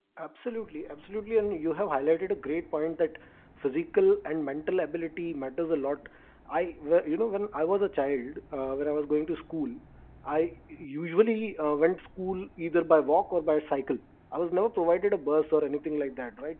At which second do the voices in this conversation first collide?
none

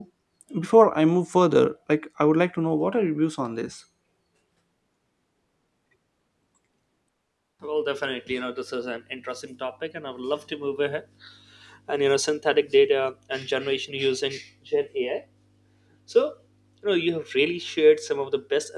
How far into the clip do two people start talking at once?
none

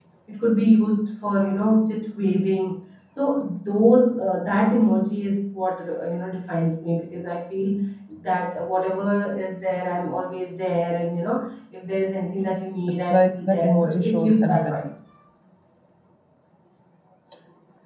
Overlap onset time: 12.9 s

